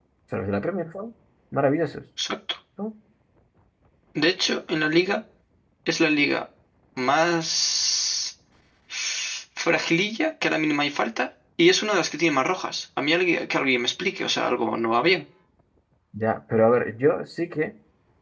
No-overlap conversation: Yes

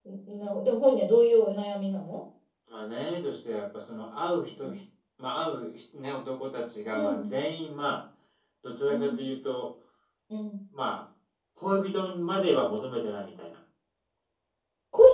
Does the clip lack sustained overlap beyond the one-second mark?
Yes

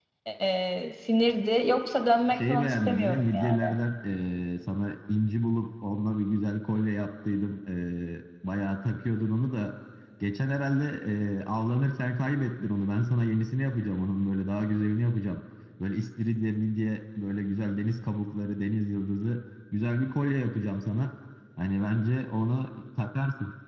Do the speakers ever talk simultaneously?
Yes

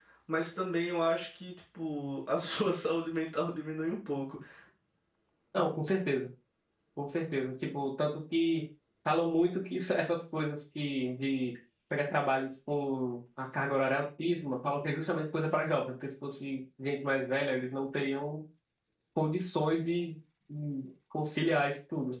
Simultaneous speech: No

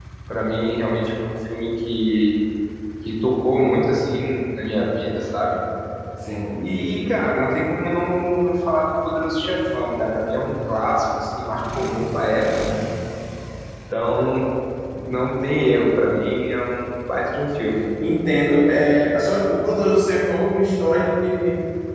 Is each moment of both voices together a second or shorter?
Yes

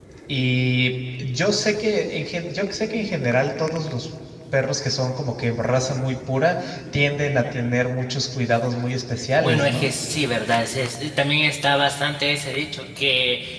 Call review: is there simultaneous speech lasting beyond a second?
No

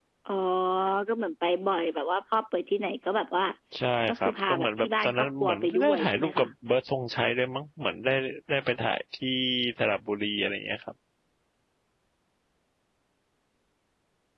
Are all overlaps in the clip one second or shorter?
No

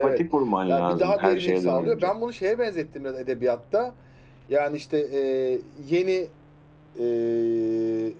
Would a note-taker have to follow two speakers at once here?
Yes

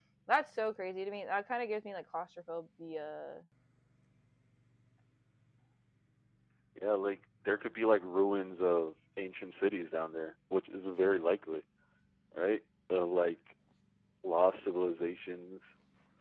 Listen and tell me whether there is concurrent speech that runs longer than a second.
No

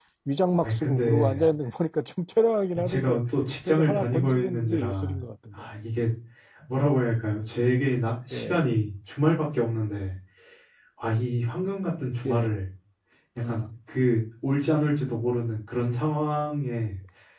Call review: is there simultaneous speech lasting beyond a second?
Yes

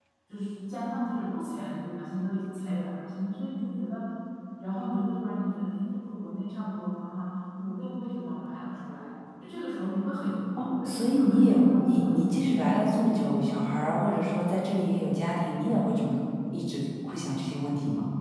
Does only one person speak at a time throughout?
No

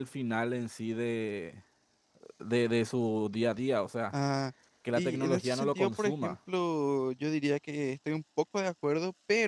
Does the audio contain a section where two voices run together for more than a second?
Yes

